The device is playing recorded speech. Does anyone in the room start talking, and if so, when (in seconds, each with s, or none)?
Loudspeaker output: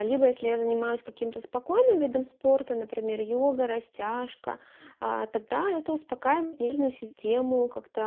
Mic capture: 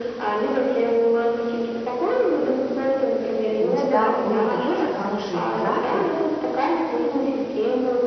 3.6 s